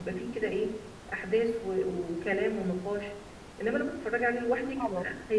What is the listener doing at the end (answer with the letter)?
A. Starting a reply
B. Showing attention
B